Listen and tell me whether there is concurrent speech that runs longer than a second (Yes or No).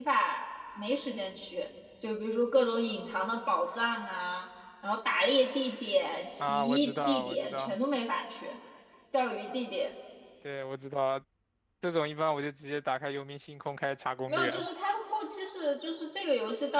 Yes